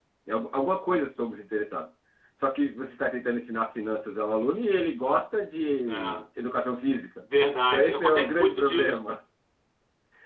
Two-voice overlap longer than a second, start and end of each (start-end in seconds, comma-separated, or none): 7.7-9.0